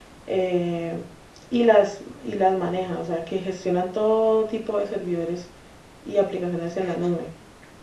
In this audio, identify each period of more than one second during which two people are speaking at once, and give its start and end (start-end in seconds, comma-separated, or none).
none